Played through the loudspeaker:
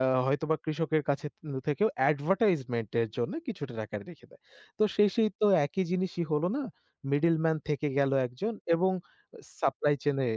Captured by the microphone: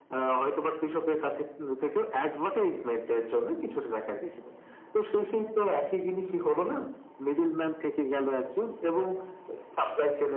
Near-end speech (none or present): none